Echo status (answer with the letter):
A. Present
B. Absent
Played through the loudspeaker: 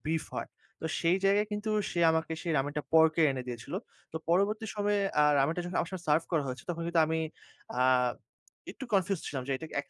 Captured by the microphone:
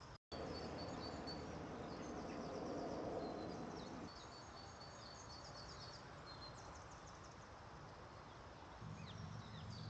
B